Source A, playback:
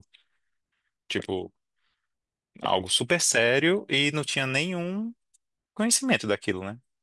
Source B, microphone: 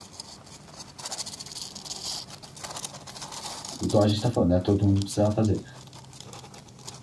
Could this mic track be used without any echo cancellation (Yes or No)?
Yes